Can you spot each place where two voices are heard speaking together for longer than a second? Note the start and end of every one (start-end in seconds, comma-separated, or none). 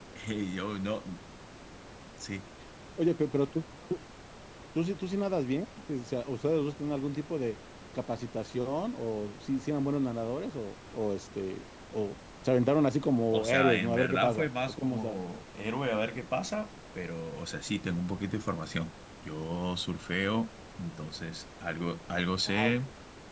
13.3-15.2